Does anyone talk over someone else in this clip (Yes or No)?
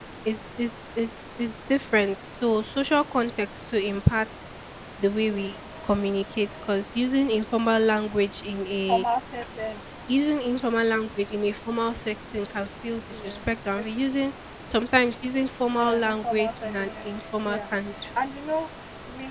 Yes